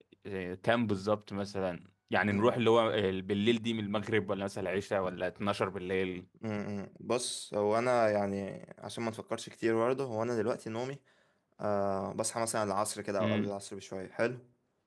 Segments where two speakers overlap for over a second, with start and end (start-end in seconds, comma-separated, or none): none